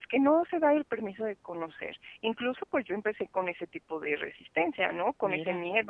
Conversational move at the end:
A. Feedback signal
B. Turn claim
A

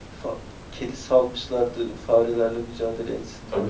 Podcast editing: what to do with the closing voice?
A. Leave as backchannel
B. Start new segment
B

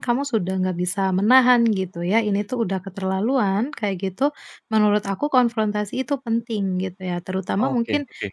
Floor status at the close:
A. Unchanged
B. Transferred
A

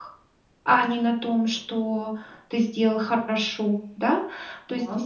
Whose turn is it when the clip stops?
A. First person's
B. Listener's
A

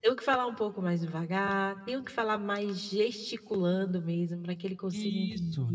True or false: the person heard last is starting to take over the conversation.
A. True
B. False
A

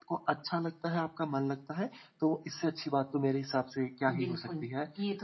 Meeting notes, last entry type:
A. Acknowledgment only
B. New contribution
B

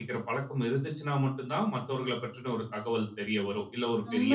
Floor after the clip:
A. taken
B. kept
A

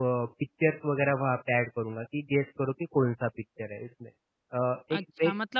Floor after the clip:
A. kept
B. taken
B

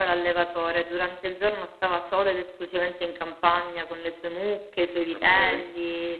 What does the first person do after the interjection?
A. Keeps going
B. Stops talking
A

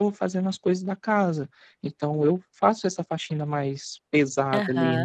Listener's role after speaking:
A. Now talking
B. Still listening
A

